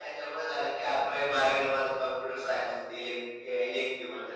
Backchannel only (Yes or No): No